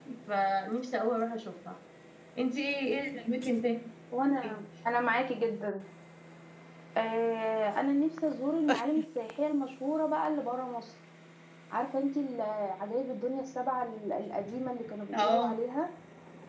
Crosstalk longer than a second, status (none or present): none